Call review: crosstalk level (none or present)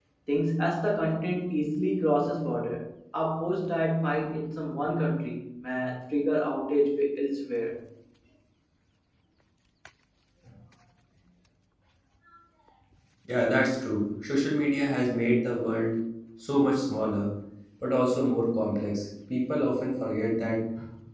none